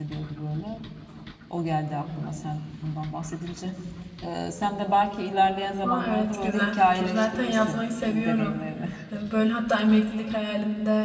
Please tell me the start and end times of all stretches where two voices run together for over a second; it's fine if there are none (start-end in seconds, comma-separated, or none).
5.8-8.6